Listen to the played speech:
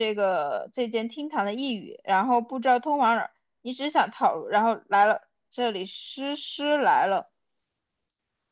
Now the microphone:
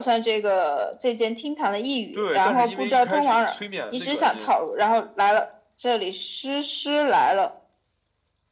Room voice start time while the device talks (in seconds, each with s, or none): 2.1 s